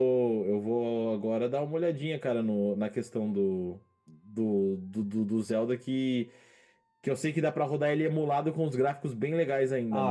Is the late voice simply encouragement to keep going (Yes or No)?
No